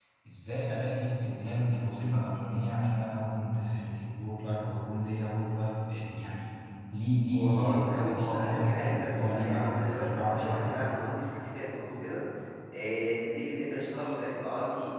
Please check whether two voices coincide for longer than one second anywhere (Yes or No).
Yes